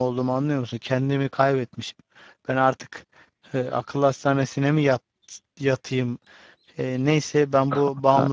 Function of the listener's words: listening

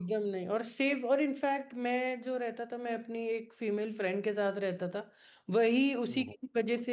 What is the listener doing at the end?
listening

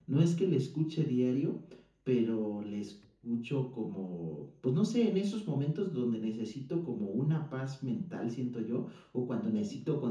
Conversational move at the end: listening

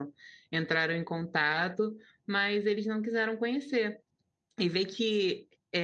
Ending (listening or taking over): listening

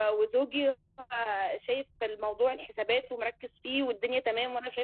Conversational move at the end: listening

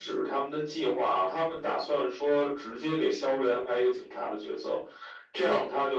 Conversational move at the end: listening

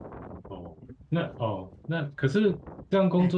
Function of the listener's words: listening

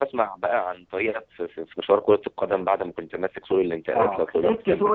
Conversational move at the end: taking over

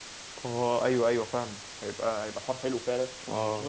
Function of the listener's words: listening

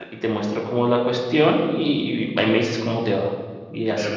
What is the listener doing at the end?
taking over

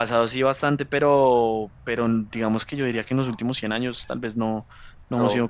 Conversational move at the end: listening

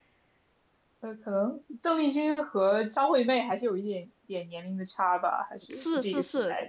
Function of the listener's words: taking over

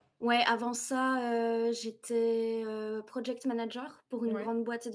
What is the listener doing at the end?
listening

